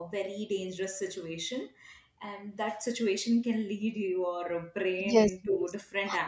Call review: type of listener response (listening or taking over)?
taking over